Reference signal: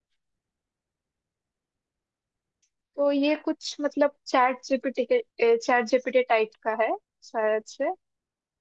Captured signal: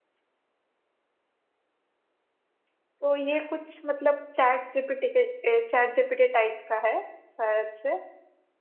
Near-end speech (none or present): none